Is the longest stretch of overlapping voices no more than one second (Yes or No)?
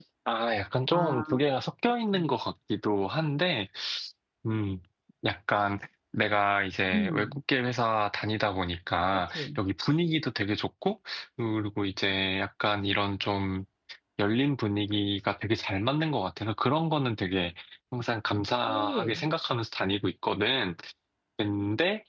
Yes